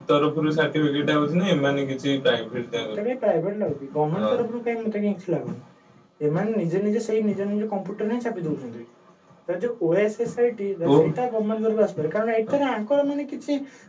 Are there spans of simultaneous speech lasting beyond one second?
No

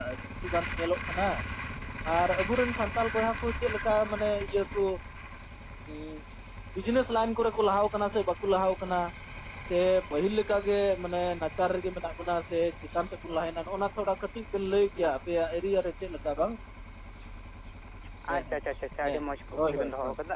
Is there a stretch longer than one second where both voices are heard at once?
No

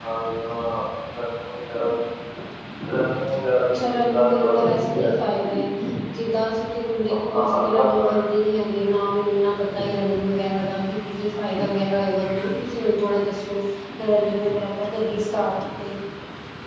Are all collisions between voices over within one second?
No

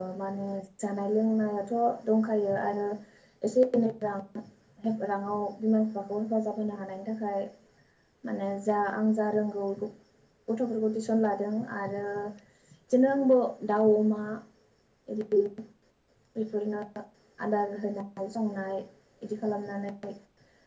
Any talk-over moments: No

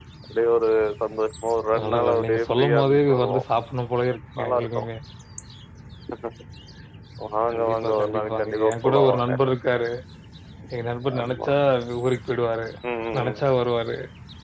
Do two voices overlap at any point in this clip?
Yes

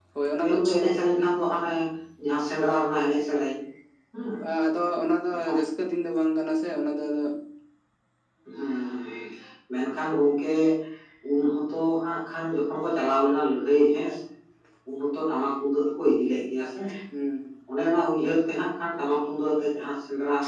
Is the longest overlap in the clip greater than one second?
No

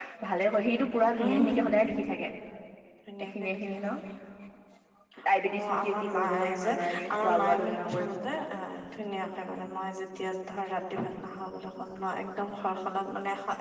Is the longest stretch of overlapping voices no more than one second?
No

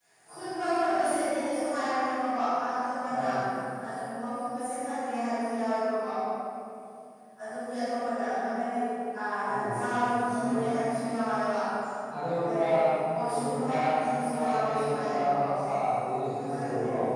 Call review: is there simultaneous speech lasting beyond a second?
Yes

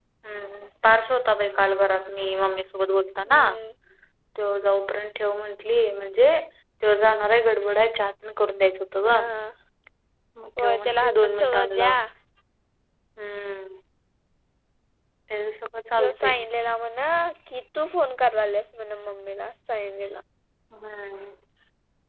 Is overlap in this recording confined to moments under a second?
No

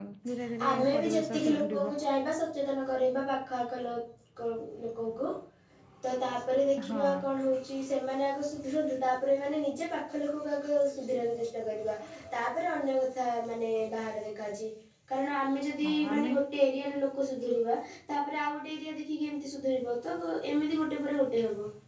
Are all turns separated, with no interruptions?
No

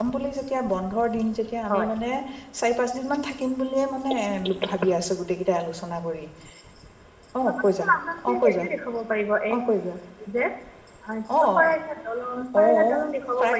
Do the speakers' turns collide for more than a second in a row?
No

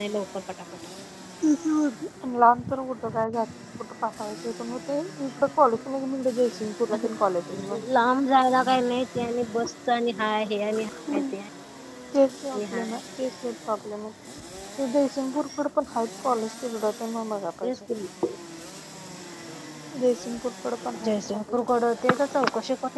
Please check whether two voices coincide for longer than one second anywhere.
No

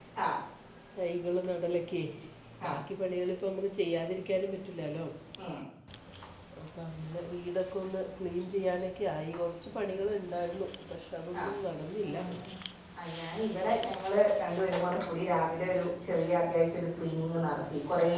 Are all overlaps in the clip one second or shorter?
Yes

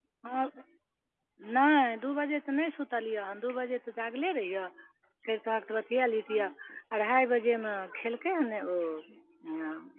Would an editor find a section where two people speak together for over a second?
No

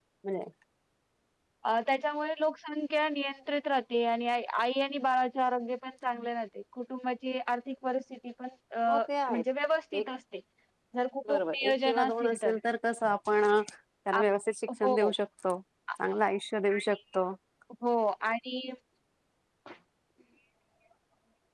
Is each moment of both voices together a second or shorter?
No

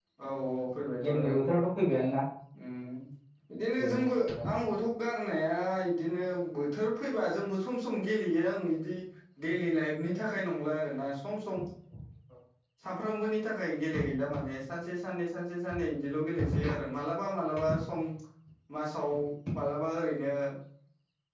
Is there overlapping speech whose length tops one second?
No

